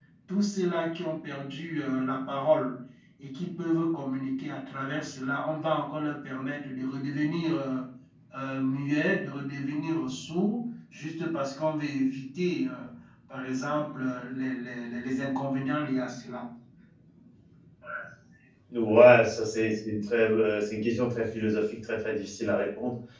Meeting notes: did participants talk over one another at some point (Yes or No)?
No